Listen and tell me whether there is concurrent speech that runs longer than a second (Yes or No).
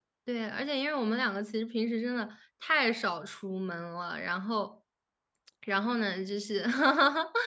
No